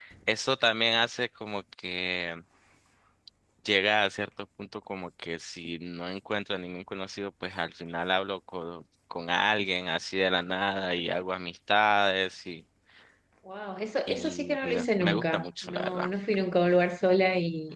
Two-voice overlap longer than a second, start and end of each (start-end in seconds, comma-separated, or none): 14.1-16.1